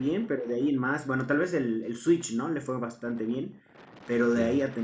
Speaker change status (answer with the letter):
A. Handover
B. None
B